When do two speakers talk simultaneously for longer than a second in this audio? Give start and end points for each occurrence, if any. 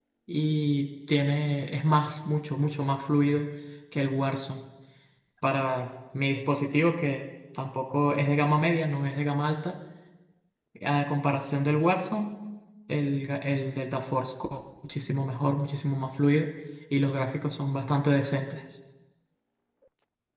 none

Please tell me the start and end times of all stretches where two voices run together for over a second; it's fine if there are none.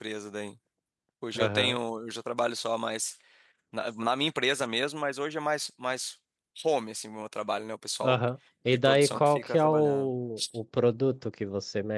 8.8-10.1

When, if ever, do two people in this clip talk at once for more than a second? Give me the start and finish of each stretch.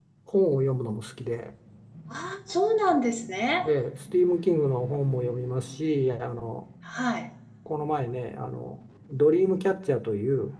none

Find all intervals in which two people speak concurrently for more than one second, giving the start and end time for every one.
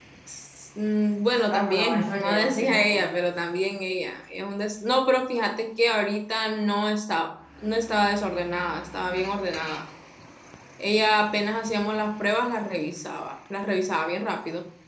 1.5-3.1

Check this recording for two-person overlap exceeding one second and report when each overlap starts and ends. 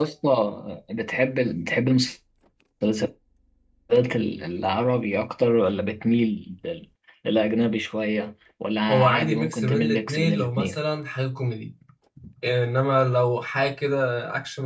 8.9-10.8

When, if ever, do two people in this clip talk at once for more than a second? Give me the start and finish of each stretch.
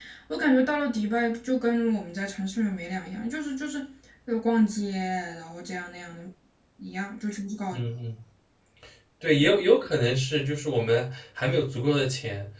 none

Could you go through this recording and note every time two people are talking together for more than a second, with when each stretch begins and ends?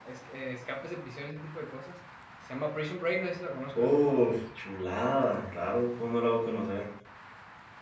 none

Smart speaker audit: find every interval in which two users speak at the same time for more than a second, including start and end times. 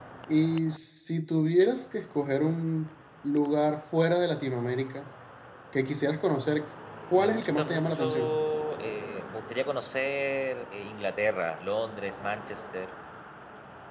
7.2-8.4

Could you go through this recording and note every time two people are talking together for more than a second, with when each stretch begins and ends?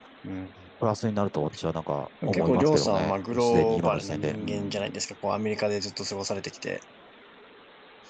2.3-4.8

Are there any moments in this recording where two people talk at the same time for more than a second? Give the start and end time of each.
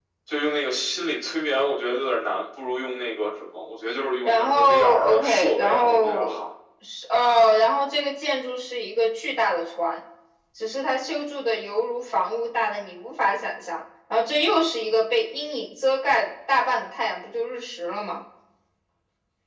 4.2-6.4

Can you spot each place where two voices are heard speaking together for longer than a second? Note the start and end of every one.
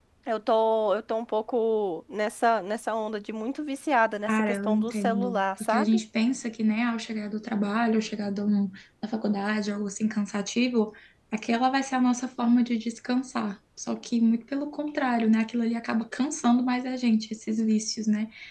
4.3-6.0

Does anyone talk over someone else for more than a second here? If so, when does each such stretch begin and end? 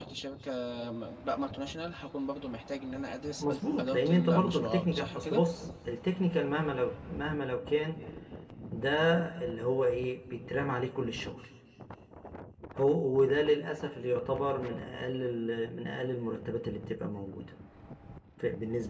3.4-5.4

